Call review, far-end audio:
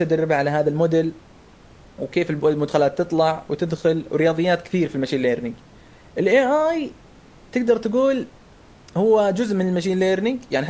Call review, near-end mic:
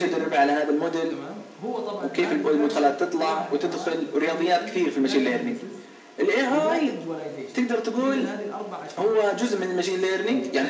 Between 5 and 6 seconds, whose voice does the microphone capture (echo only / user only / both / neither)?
both